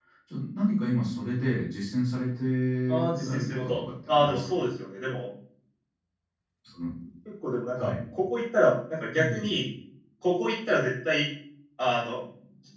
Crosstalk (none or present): present